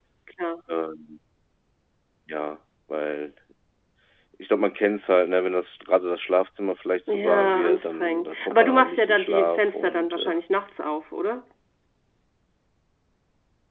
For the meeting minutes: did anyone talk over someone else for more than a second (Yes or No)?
Yes